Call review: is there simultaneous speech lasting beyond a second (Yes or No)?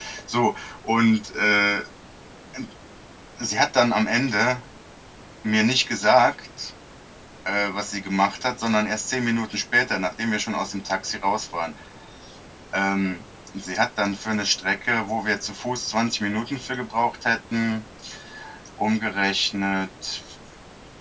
No